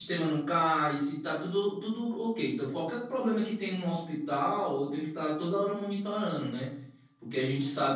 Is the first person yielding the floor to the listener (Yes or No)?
No